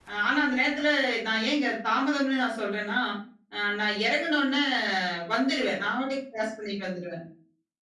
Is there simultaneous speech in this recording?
No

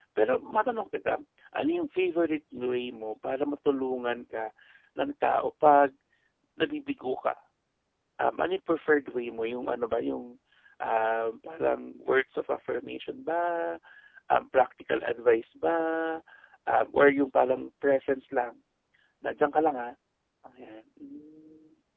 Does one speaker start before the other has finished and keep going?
No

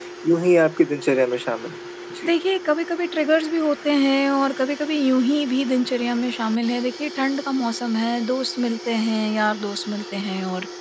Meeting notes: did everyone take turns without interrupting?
Yes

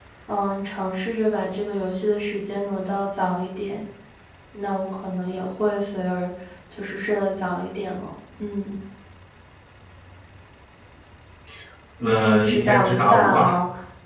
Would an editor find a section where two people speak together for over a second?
Yes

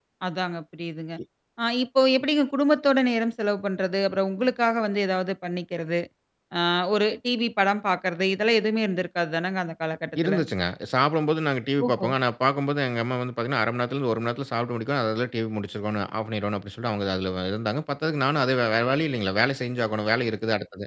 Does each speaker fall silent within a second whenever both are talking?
Yes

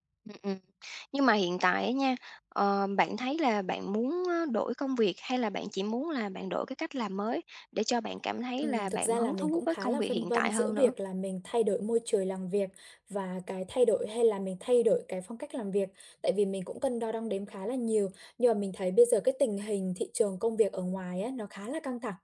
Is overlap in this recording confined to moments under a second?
No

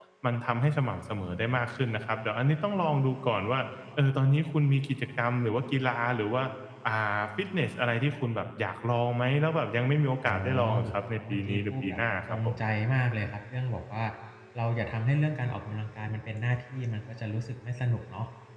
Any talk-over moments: Yes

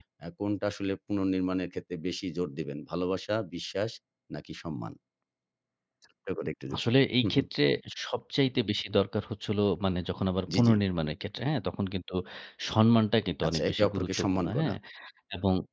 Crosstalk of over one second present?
Yes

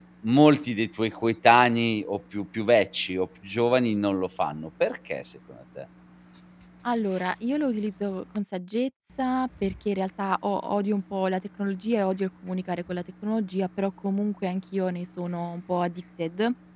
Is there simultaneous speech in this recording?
No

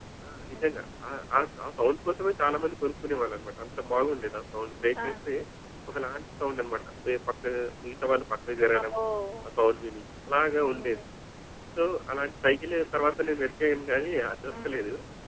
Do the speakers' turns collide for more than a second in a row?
No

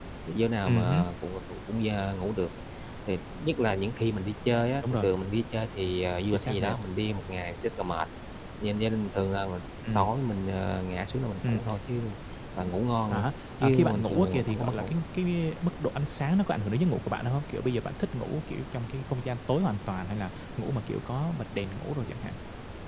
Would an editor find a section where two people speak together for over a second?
Yes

